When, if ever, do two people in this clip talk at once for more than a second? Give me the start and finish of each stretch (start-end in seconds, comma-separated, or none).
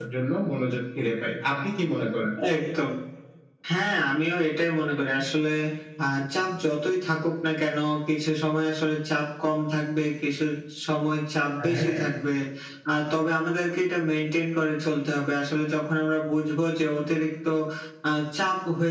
none